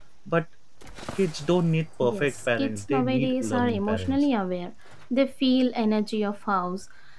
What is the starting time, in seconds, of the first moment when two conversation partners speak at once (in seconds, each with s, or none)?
2.0 s